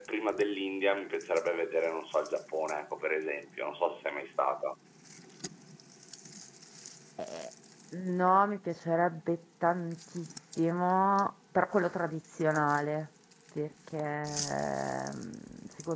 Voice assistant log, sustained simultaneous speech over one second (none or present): none